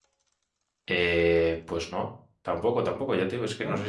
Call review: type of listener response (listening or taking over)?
listening